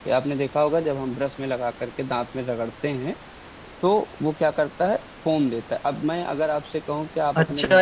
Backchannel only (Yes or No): No